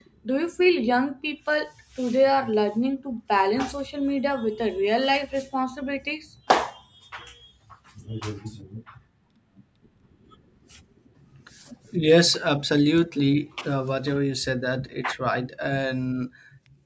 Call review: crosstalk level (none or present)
none